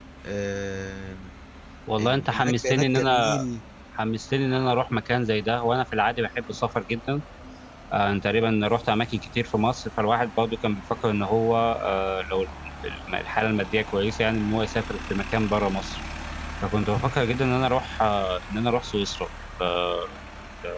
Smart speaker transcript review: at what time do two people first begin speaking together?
2.0 s

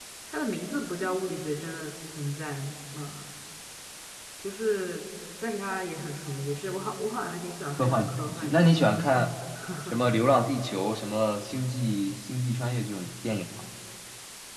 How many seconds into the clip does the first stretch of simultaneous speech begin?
7.8 s

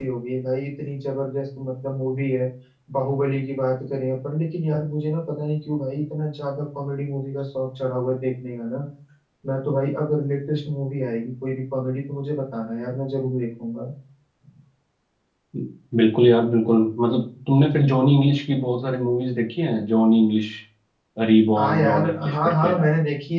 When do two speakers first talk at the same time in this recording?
21.6 s

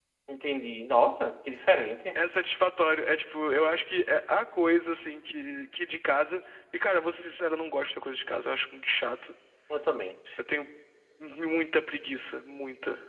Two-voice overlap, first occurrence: none

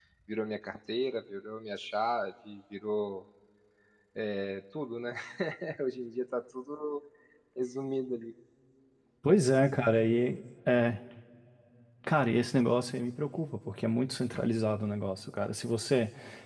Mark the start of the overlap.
none

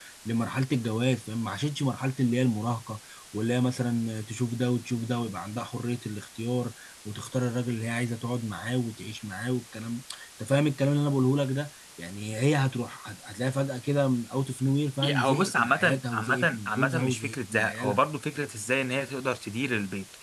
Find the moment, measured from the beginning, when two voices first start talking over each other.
15.0 s

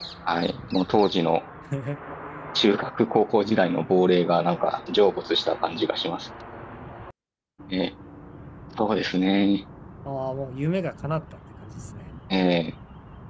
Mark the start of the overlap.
none

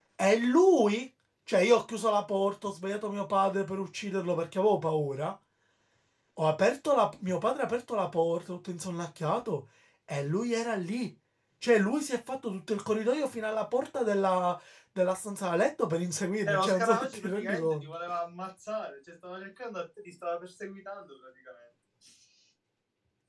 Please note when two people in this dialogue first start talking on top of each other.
16.4 s

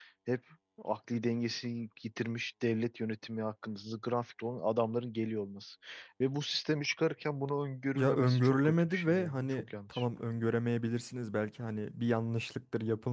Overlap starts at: 8.0 s

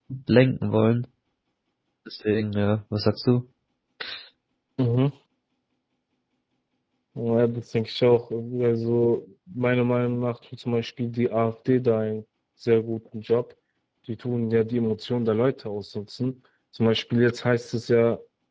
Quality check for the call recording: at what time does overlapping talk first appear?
none

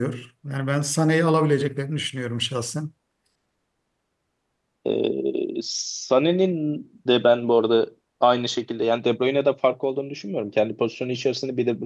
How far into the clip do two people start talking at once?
none

